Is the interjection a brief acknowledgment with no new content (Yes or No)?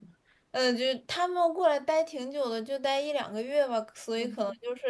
Yes